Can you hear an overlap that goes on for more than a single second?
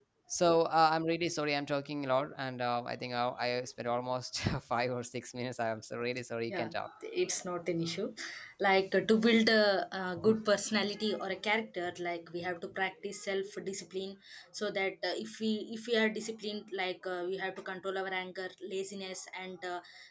No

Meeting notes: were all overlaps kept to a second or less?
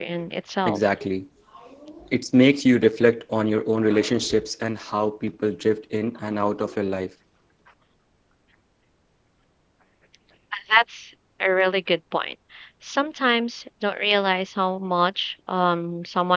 Yes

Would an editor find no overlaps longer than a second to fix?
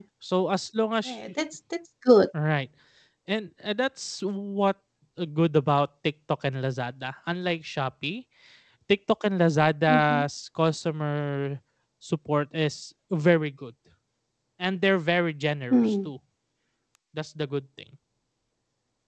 Yes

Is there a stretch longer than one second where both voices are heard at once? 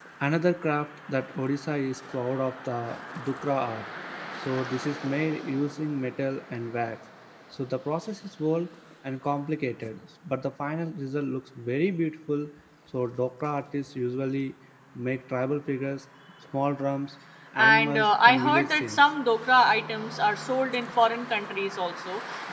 Yes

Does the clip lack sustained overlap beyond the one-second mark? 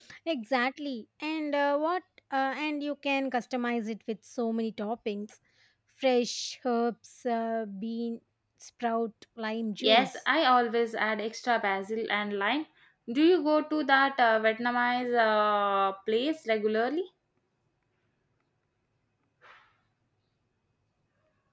Yes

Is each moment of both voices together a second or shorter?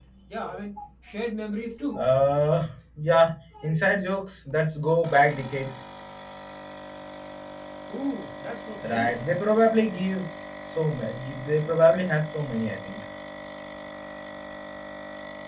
Yes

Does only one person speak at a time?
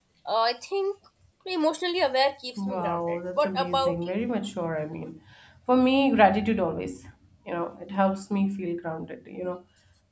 No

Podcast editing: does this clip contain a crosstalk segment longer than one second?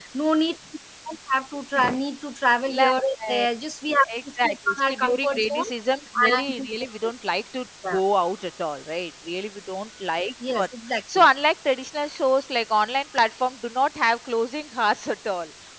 Yes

